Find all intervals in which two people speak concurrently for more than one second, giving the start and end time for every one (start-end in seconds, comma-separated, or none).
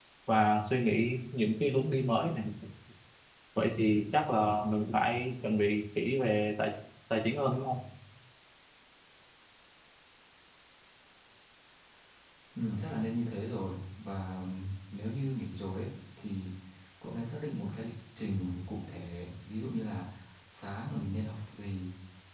none